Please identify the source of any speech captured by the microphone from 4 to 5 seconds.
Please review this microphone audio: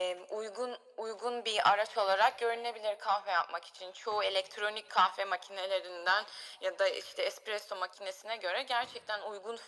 echo only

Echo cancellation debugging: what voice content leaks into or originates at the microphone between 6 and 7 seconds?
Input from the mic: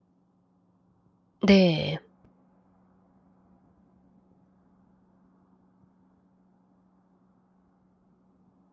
neither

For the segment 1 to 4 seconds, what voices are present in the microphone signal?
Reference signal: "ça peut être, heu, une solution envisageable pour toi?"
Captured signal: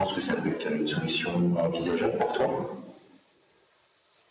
echo only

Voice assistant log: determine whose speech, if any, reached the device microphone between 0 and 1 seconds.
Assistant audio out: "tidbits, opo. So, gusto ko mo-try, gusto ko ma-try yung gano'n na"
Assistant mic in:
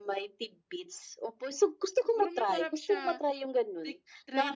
echo only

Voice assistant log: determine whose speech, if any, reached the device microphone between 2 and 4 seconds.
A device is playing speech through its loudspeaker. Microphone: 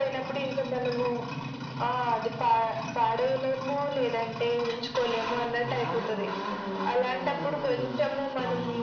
echo only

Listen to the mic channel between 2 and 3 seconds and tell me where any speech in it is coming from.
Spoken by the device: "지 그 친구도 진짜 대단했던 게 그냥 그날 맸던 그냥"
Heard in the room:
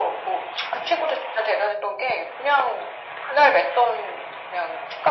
echo only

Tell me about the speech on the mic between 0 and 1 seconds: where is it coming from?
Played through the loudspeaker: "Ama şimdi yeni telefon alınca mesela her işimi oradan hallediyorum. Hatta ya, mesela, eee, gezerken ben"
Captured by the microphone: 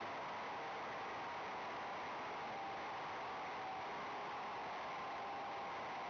neither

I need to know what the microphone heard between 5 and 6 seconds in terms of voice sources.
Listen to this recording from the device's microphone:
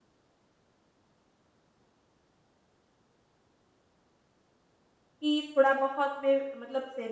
user only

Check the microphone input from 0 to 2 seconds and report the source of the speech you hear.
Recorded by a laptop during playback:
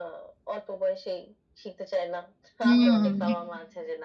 echo only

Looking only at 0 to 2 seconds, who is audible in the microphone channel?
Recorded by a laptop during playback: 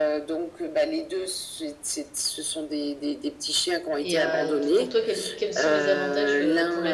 echo only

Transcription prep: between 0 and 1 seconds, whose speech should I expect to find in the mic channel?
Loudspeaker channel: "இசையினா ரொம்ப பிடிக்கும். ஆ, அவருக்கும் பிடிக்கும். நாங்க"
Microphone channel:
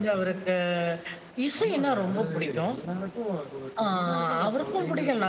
echo only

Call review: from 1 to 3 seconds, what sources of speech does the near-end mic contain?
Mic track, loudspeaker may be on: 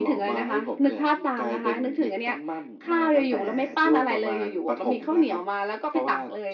echo only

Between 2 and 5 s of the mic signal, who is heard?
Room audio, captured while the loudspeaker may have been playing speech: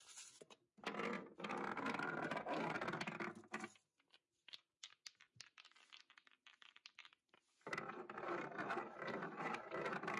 neither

